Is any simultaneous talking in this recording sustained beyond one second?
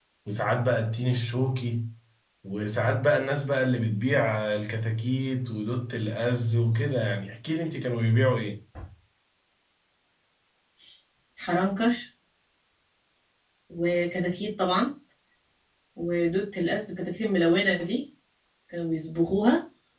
No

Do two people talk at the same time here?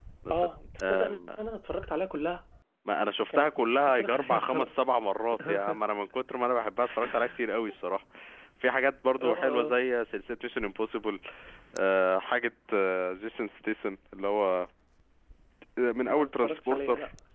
Yes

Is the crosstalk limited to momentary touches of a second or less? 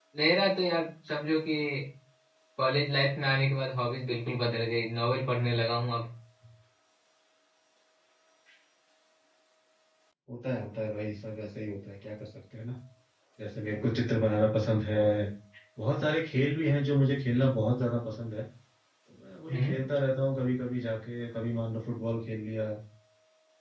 Yes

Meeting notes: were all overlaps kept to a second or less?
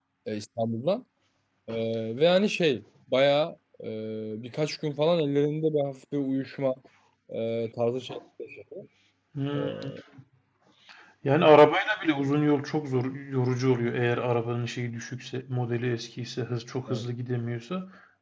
Yes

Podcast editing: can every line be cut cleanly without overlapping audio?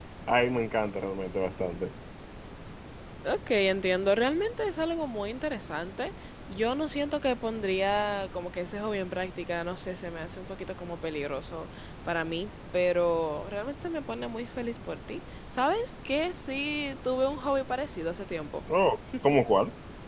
Yes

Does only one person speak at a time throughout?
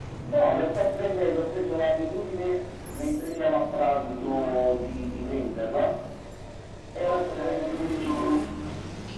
No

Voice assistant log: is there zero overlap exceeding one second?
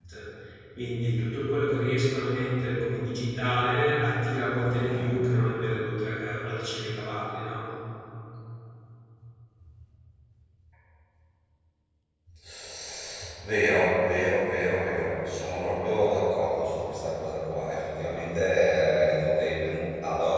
Yes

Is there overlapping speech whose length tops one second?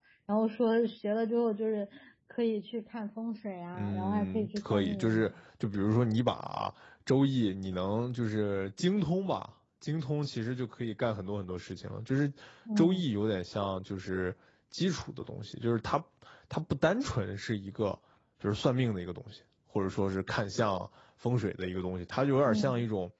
Yes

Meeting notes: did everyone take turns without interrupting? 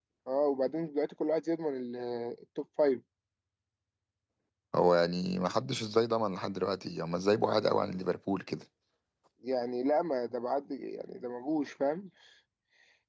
Yes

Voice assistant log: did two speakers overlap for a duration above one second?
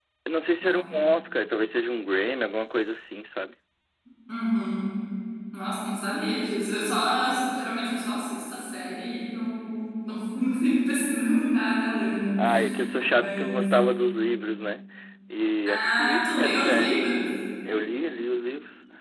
Yes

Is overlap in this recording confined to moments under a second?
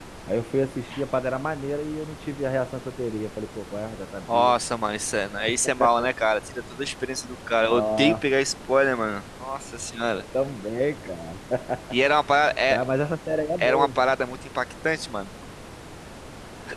Yes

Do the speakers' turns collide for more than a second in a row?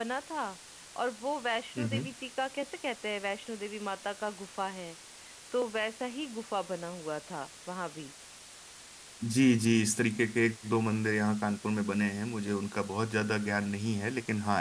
No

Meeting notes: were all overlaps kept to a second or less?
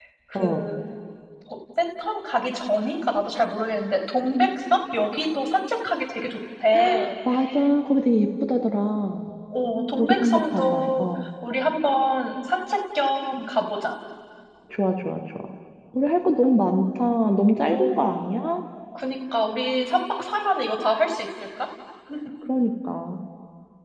No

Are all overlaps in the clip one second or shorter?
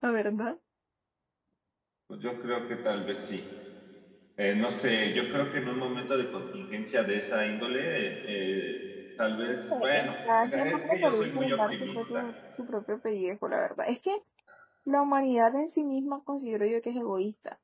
No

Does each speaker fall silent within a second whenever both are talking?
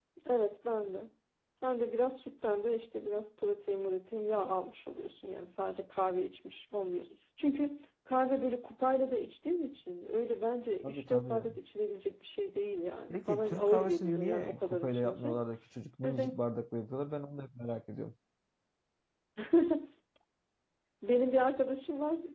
No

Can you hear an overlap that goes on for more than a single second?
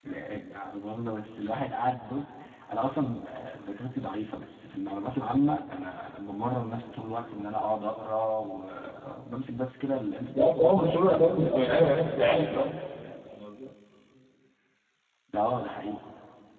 Yes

